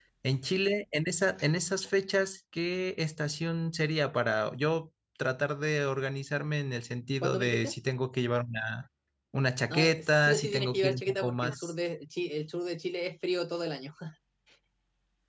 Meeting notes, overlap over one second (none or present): present